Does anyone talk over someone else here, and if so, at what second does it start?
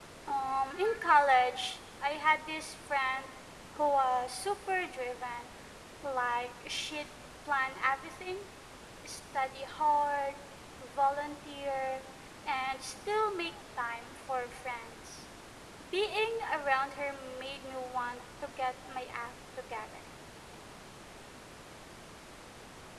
none

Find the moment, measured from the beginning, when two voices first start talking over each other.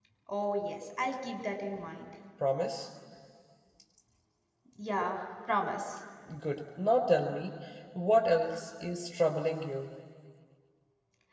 none

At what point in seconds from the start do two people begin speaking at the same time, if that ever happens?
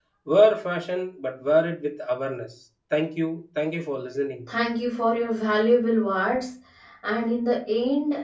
none

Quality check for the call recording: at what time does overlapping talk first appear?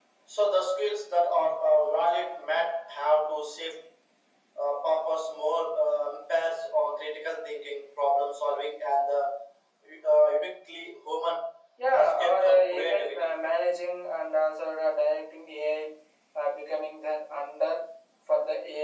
11.9 s

